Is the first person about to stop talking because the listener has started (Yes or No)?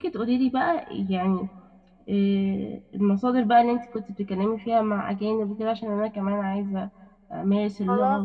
Yes